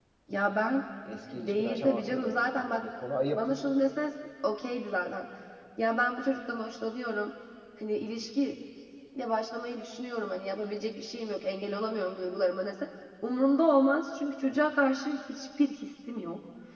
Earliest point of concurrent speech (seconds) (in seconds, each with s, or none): 1.3 s